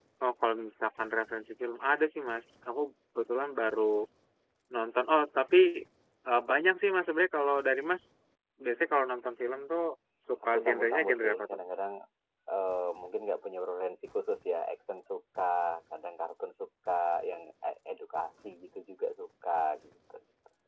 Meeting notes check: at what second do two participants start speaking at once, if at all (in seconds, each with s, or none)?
10.5 s